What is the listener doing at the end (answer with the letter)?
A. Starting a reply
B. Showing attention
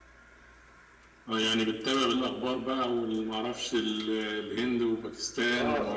A